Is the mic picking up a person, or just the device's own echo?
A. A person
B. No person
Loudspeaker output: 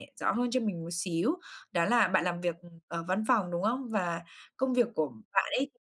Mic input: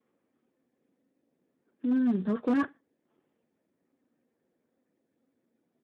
A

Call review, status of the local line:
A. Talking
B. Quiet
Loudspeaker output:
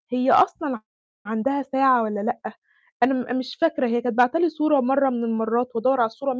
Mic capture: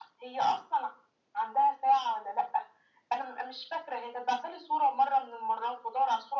B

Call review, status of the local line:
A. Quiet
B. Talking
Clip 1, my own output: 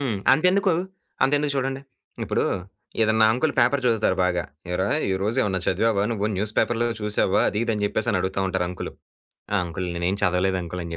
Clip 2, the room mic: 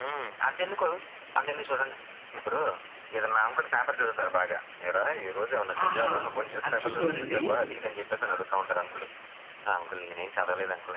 B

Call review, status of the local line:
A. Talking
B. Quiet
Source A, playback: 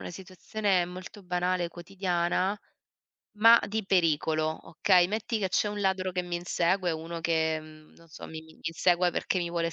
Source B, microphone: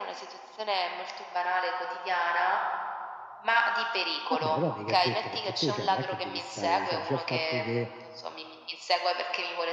A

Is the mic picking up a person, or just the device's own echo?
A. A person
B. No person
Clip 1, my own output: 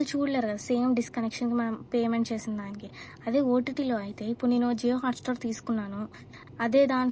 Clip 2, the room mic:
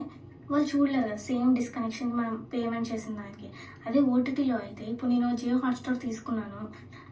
B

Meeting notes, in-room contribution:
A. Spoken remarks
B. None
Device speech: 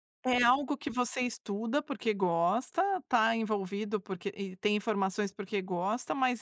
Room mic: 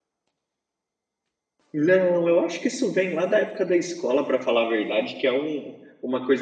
A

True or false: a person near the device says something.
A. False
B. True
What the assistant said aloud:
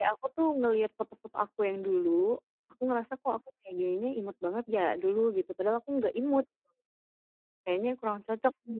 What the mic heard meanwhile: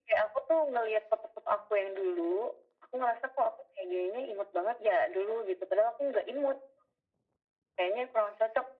A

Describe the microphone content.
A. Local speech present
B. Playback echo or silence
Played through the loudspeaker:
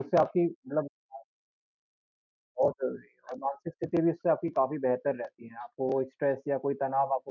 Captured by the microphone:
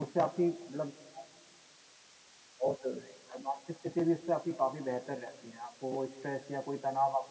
B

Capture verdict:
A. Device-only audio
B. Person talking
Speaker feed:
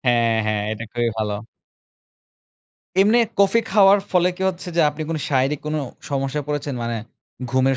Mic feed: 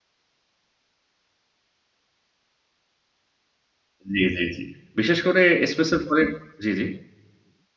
B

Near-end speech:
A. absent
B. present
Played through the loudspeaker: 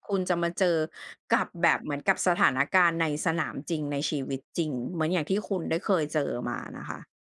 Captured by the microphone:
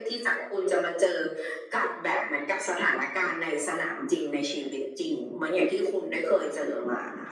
A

